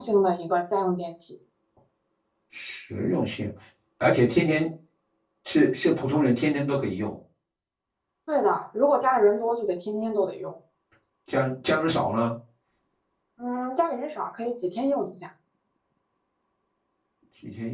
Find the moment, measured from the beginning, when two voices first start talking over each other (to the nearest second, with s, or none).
none